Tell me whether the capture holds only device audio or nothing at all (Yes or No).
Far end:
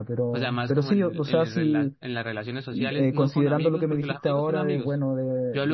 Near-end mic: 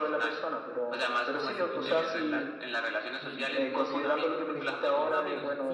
No